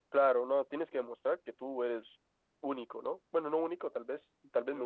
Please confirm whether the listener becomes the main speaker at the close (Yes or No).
No